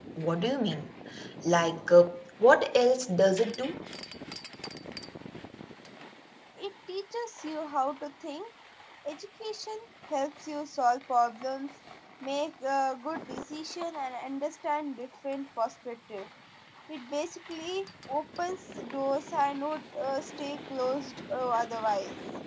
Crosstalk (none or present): none